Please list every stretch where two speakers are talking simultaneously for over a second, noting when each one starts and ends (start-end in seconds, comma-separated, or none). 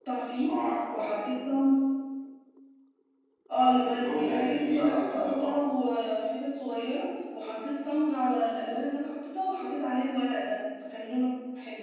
3.7-5.5